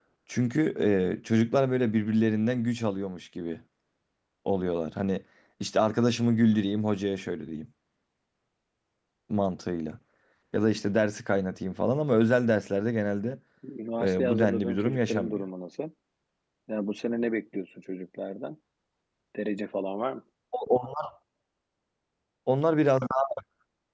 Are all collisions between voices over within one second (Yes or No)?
No